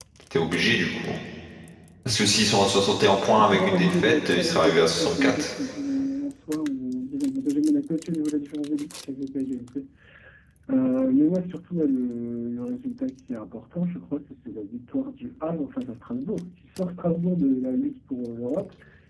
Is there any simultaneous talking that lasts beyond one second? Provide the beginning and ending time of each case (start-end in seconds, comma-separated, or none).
3.4-5.5